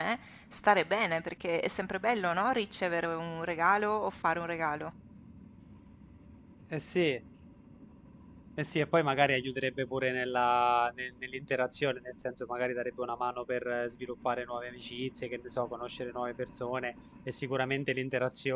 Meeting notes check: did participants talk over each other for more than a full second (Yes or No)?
No